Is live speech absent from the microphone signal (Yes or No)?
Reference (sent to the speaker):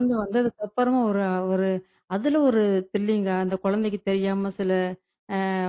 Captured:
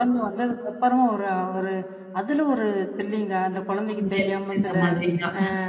No